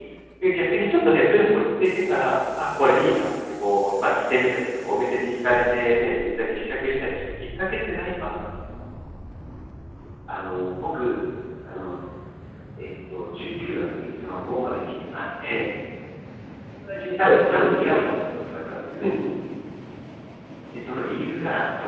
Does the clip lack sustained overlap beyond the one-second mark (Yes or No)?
Yes